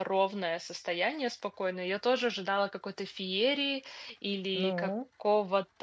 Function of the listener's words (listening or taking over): listening